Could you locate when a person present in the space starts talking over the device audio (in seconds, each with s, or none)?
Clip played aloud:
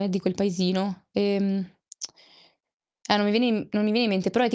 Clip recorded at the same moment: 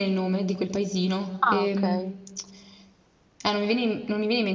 1.4 s